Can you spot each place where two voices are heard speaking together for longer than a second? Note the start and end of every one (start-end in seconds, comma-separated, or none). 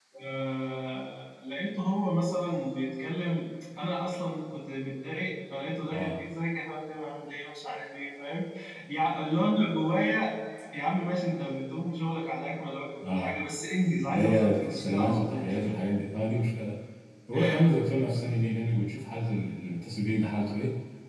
14.1-15.5